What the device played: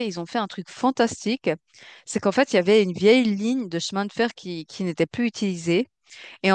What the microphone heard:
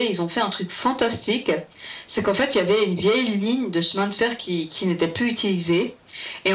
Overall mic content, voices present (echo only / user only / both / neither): echo only